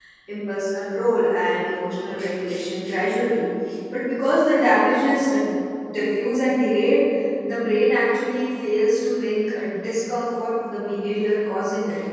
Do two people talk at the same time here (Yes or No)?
No